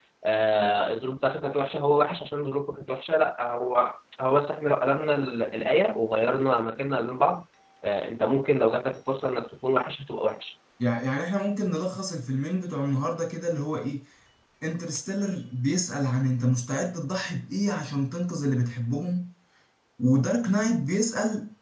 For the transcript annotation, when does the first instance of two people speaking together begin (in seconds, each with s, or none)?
none